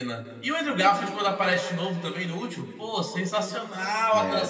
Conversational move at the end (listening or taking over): listening